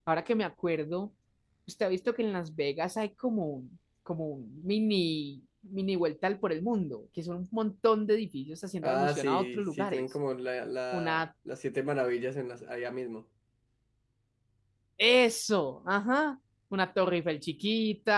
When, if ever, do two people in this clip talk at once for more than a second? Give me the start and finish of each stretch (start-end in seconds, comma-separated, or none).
8.8-10.1